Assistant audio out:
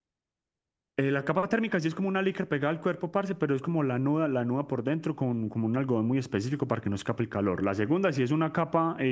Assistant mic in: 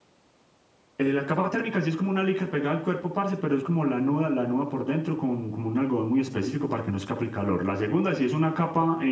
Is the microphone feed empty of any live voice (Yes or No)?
Yes